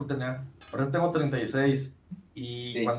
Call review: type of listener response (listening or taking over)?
listening